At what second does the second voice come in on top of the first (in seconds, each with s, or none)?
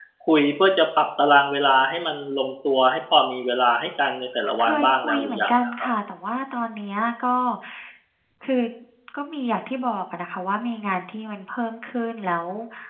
4.6 s